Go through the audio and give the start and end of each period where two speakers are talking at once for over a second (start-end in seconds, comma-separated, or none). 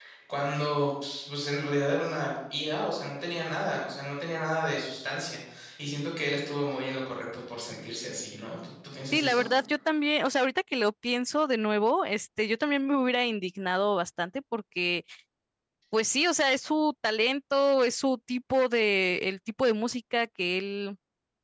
none